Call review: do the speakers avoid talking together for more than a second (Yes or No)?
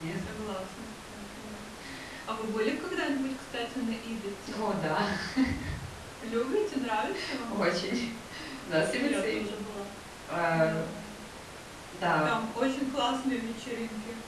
Yes